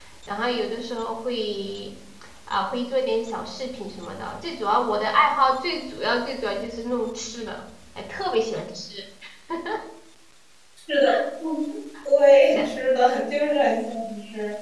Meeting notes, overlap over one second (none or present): none